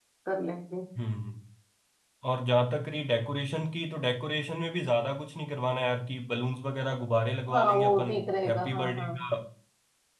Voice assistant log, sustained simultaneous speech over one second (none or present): present